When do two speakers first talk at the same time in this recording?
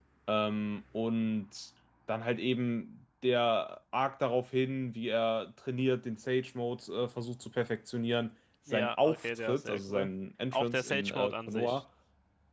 9 s

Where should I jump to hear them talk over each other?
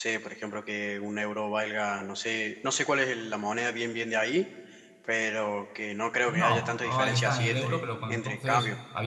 6 s

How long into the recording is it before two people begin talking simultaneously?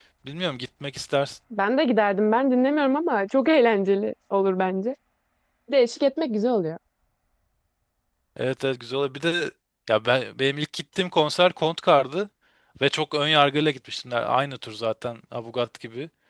none

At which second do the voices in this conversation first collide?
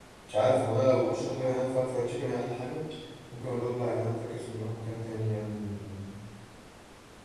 none

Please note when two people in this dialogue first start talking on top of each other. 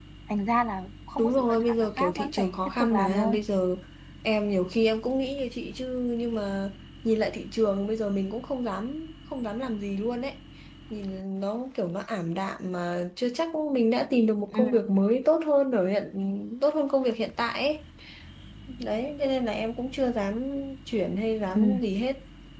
1 s

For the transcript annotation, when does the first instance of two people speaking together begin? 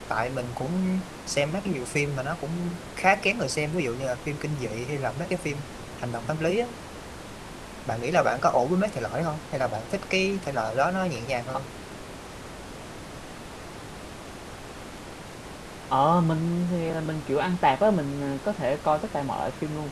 none

